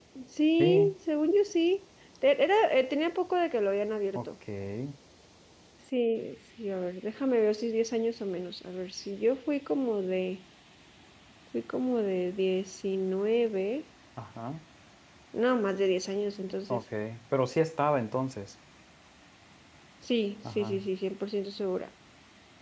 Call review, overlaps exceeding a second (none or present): none